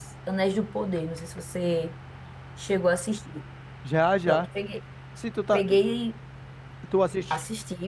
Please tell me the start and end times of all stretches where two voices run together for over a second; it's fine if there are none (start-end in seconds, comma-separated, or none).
none